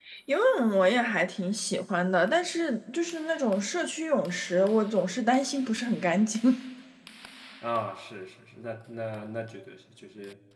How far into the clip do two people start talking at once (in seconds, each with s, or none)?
none